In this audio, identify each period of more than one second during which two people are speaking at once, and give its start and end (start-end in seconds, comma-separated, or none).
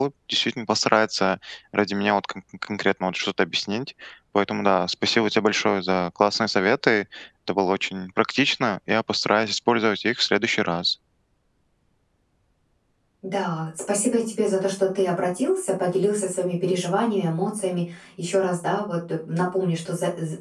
none